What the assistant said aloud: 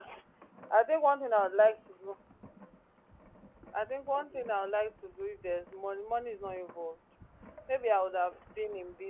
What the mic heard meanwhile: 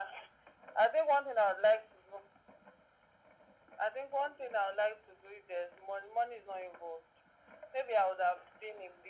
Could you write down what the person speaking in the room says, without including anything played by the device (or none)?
none